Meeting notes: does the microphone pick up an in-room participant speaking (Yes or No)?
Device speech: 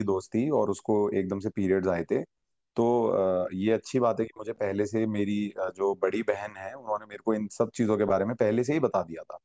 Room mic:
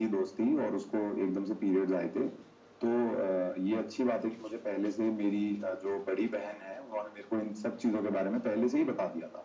No